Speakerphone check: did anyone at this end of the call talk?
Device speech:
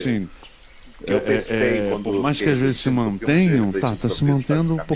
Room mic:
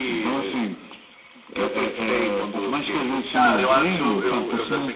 Yes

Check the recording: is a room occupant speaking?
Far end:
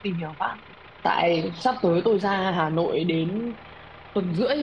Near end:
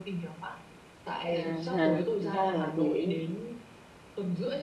Yes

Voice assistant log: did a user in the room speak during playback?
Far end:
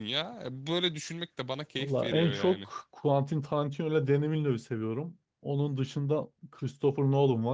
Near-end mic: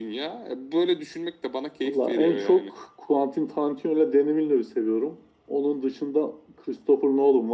No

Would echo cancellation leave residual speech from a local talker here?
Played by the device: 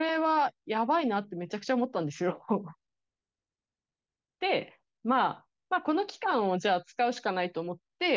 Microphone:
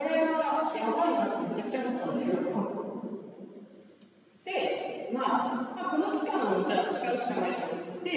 No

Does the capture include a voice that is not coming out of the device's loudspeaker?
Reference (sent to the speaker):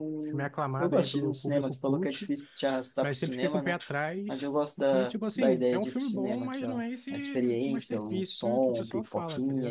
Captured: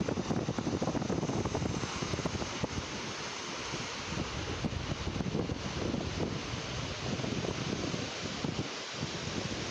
No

